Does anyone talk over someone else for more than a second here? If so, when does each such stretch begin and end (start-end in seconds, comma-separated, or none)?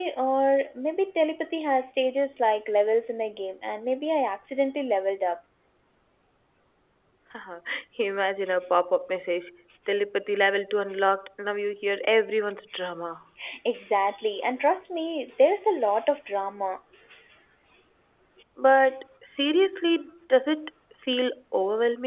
none